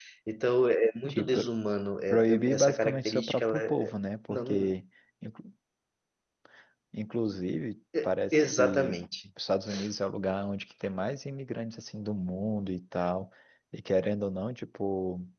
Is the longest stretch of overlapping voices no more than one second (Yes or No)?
No